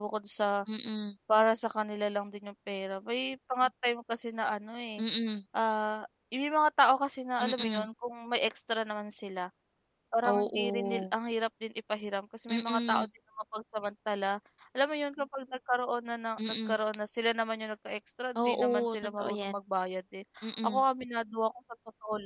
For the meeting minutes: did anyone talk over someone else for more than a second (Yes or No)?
Yes